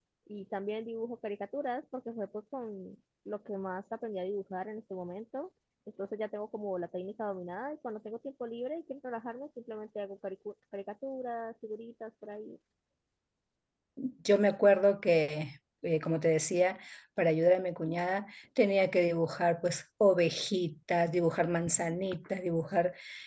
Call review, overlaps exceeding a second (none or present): none